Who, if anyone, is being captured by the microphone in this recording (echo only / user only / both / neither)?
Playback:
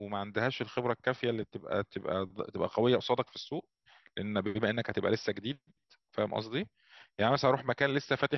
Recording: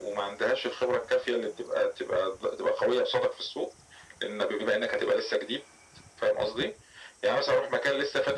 echo only